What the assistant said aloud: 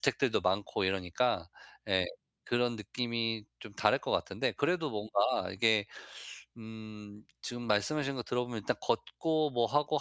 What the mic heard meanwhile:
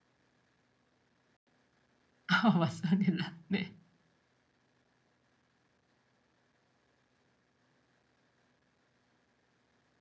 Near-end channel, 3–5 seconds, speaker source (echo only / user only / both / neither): user only